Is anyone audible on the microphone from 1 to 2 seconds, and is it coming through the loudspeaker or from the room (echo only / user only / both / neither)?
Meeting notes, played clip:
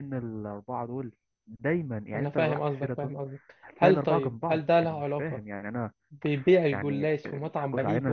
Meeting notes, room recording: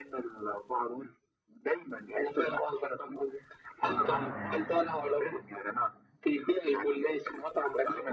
echo only